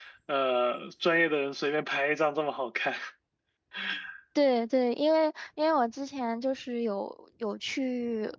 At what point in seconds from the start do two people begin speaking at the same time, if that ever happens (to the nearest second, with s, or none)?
none